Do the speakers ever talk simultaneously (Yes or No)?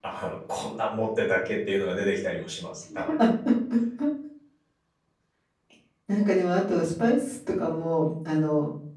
No